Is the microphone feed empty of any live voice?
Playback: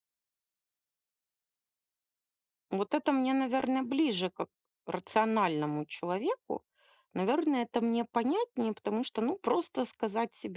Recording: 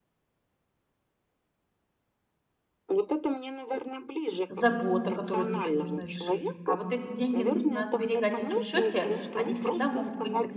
No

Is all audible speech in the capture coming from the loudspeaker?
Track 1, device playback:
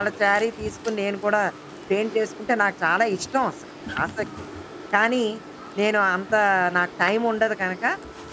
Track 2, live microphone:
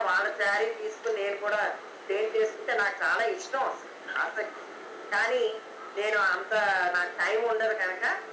Yes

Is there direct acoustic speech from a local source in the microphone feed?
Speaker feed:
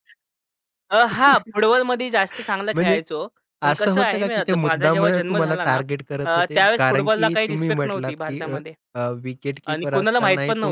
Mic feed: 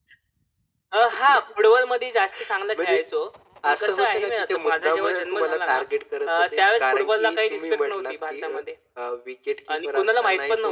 No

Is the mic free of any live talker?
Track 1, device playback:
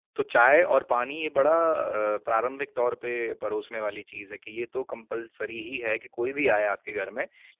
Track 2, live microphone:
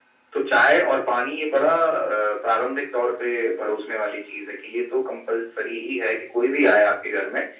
Yes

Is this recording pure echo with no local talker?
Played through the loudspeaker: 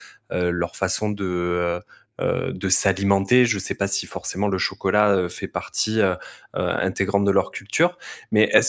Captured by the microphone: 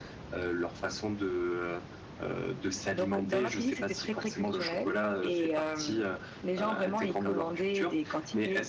No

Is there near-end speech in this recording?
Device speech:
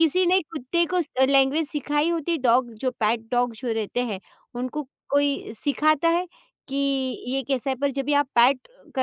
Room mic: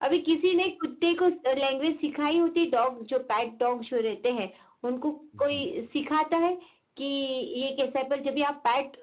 Yes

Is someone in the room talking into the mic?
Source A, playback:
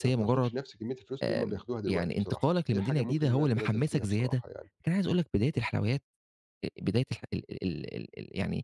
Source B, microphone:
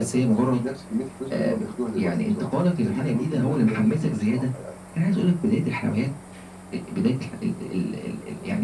No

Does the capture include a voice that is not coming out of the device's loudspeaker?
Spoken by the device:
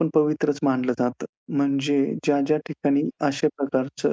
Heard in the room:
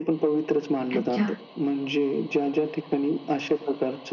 Yes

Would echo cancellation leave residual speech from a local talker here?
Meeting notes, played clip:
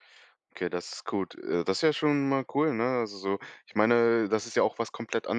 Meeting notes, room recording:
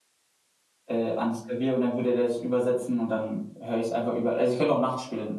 Yes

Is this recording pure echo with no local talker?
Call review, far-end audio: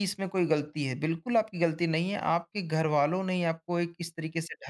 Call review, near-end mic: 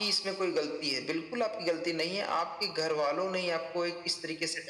Yes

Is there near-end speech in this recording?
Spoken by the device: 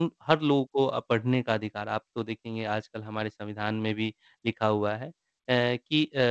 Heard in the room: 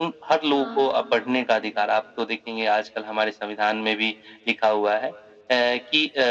Yes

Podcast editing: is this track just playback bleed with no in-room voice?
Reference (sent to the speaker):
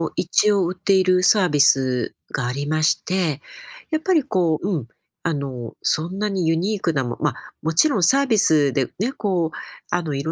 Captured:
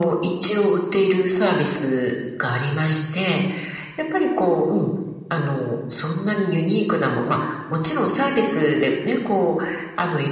Yes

